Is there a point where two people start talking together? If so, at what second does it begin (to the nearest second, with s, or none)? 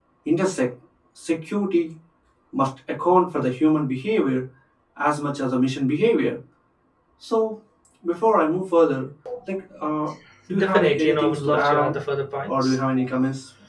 11 s